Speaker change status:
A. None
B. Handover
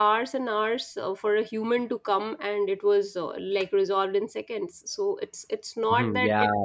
B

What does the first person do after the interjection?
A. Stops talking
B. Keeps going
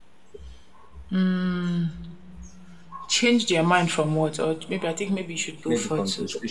A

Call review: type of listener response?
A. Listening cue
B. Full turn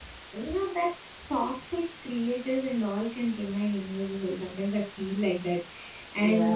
A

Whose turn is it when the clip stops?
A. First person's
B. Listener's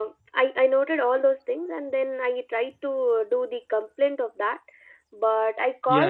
B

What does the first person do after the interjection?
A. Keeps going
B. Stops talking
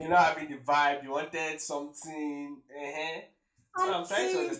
B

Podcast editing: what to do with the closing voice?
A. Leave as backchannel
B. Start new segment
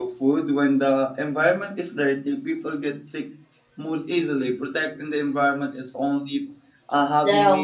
A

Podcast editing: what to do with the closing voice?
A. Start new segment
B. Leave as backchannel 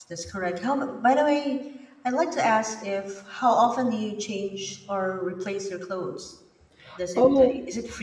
B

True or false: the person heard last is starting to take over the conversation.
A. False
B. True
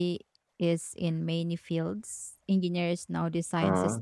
A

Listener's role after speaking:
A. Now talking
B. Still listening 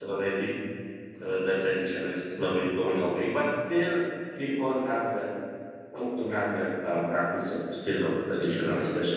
B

